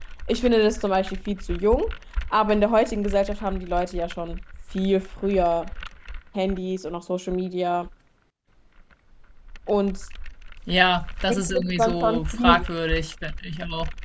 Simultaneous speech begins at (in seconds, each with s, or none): 11.3 s